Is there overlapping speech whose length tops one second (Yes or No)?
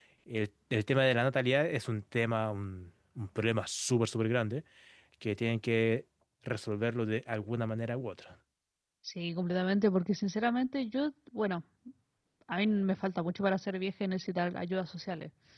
No